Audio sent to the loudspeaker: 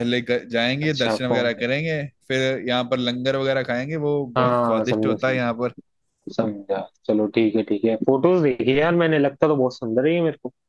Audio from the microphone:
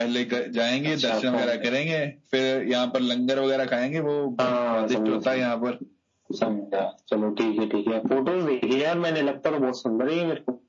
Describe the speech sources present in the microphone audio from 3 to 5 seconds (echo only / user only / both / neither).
echo only